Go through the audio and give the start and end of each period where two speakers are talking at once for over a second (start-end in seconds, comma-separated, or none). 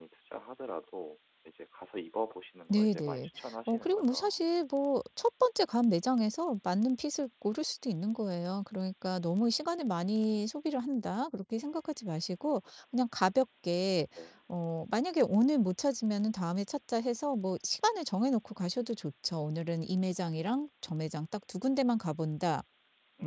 2.7-4.4